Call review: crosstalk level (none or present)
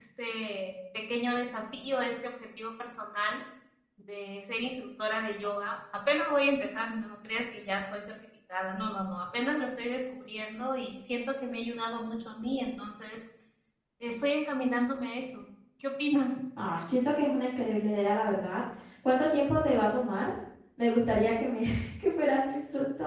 none